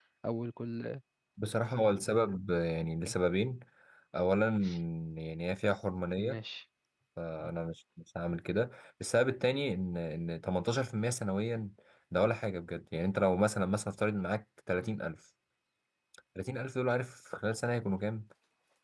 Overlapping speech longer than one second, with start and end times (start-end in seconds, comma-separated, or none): none